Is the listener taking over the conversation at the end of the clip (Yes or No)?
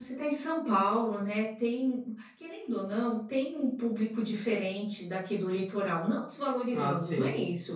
No